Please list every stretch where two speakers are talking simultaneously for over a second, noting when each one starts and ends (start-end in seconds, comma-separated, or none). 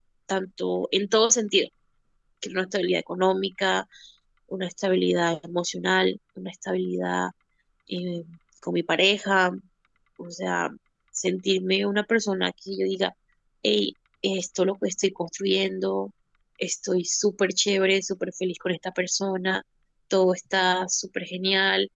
none